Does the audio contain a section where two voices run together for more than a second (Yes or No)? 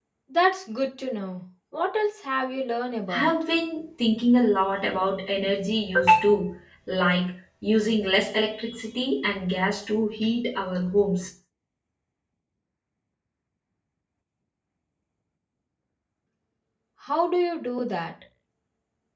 No